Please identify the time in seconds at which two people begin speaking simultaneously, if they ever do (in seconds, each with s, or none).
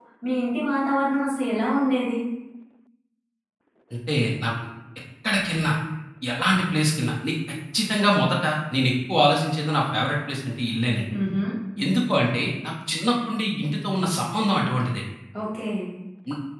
none